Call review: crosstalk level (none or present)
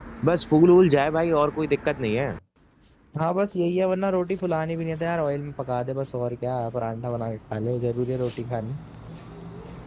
none